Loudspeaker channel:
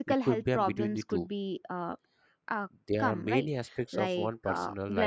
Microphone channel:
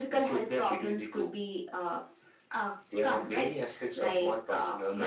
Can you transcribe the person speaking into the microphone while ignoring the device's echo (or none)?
none